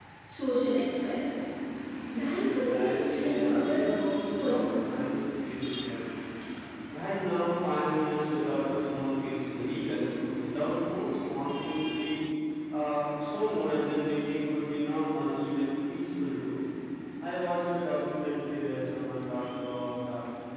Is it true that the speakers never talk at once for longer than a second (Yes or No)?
No